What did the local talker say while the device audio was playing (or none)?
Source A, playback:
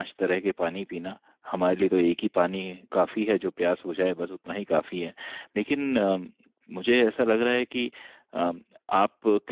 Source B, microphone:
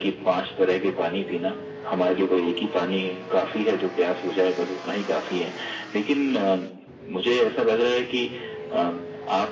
none